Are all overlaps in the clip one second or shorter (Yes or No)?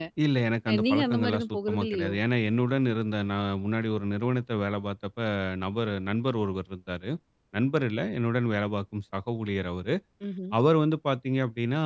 No